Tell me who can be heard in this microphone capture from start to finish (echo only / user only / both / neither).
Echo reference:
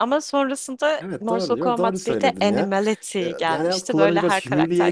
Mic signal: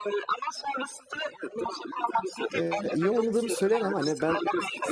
both